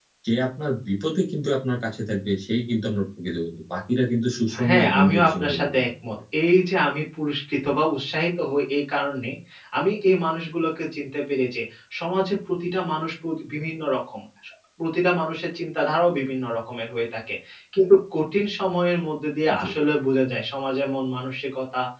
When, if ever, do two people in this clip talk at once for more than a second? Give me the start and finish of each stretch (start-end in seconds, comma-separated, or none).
4.7-5.9